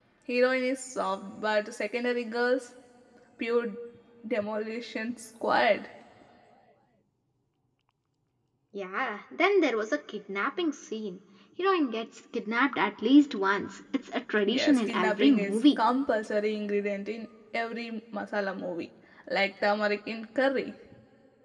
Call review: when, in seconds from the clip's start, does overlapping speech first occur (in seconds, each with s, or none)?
14.5 s